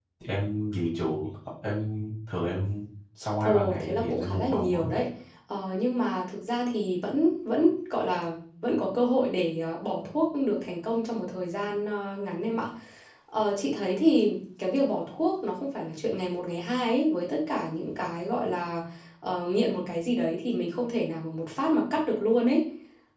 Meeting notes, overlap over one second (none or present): present